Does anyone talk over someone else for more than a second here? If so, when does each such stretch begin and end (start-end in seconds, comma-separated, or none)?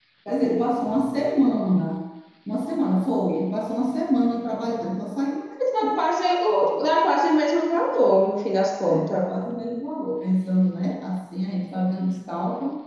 none